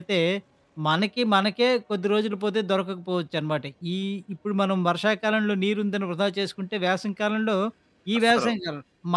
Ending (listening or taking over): listening